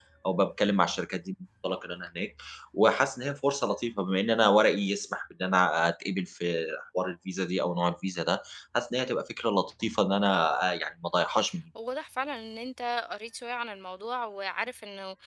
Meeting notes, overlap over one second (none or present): none